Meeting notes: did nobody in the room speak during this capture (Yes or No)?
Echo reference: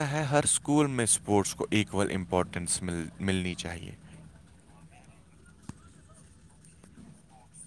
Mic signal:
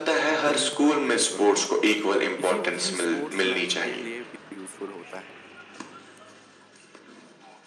No